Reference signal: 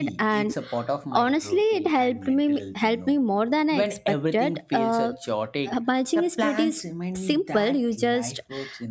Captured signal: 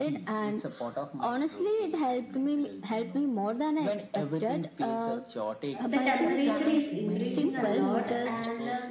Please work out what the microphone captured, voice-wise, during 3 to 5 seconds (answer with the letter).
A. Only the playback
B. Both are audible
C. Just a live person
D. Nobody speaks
A